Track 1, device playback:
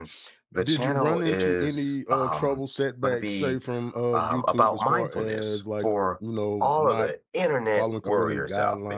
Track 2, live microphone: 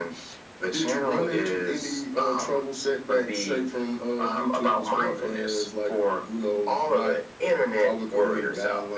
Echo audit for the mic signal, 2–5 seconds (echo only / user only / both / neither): echo only